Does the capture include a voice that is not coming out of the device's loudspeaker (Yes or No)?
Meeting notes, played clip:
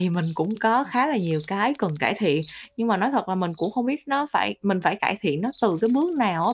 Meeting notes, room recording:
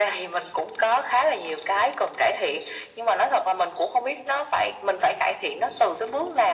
No